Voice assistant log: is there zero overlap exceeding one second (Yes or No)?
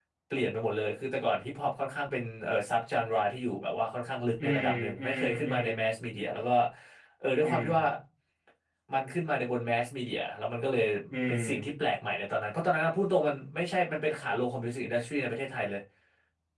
No